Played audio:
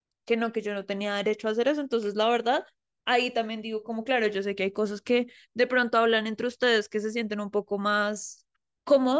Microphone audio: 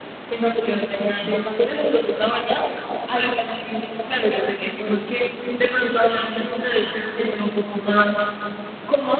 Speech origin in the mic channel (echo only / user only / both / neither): echo only